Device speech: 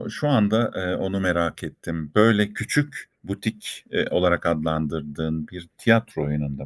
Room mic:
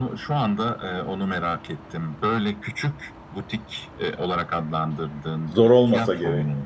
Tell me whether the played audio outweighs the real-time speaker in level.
No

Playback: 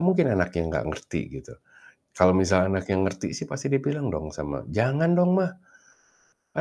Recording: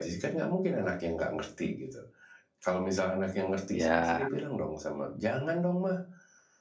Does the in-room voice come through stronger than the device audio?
Yes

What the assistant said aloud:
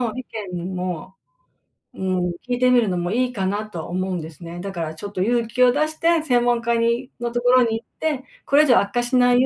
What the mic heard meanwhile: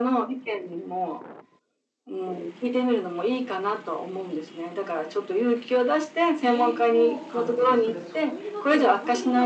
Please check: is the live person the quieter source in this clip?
Yes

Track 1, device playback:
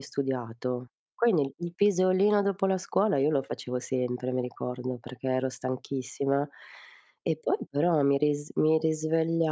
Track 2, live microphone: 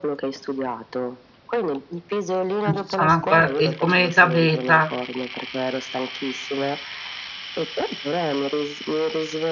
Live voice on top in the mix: Yes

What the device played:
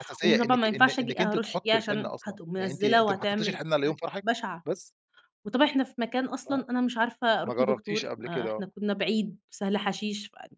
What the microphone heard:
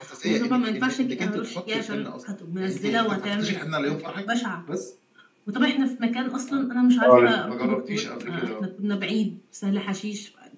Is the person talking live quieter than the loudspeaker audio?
No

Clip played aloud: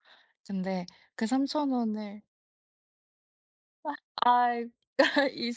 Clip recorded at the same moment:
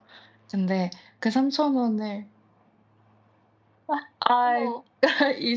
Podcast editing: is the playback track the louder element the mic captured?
Yes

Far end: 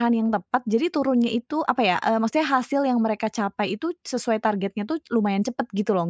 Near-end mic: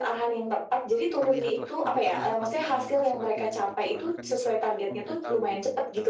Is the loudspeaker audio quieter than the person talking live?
No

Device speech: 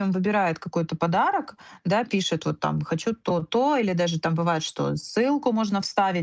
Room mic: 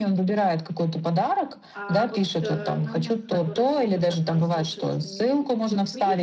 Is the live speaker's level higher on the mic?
No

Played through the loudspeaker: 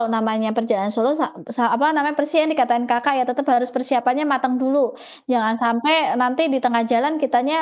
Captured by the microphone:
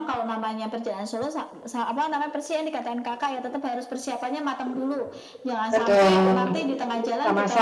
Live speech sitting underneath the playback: No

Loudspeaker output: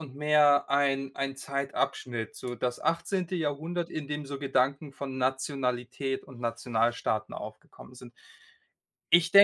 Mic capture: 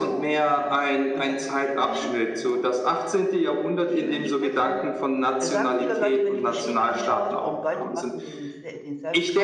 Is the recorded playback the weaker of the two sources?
No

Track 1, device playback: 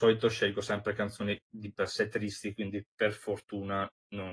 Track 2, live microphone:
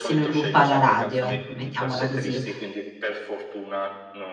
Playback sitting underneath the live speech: Yes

